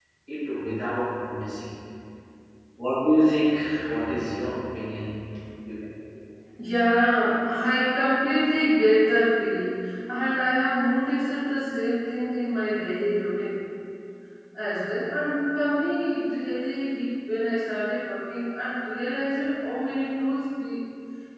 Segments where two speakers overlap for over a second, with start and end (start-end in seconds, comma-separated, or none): none